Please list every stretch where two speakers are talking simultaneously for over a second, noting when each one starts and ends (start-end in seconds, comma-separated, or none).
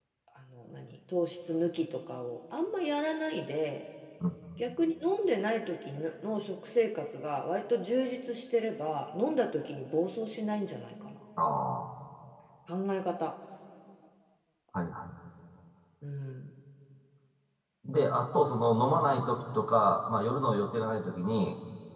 none